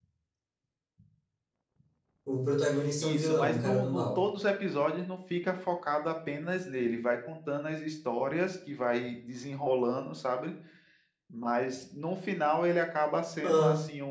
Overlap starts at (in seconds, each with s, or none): 3.0 s